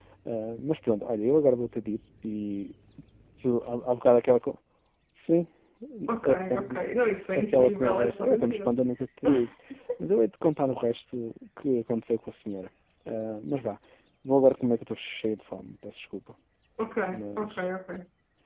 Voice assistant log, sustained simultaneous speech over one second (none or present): present